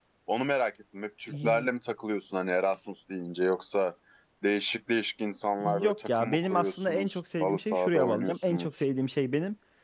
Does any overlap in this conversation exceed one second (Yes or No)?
Yes